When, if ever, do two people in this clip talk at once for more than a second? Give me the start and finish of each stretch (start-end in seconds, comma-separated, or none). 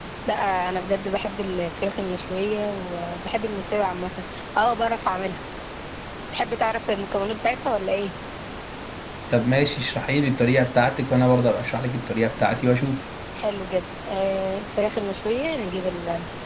none